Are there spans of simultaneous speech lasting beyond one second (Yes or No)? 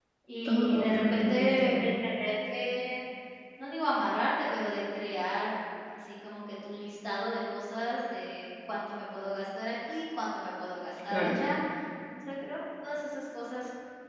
Yes